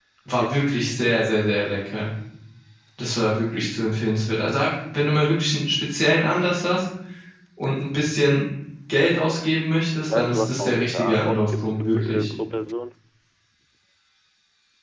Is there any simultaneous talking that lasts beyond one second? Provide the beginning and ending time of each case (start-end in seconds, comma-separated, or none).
10.1-12.3